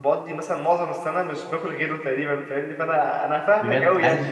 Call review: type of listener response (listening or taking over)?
taking over